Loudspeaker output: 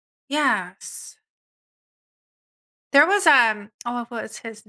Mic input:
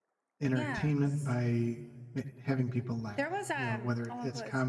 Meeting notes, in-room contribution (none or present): present